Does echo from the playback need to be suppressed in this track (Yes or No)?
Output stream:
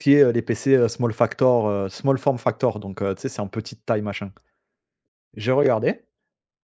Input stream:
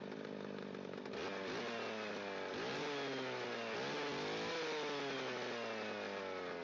No